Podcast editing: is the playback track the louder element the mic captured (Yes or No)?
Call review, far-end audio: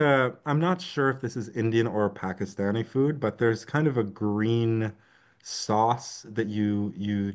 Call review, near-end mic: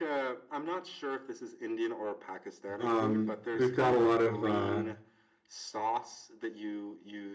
No